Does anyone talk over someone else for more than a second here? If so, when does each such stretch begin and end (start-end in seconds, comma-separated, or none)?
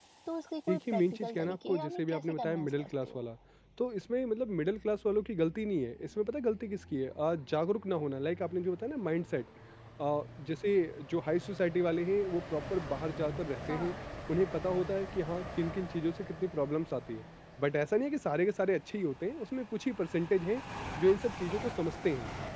0.7-3.2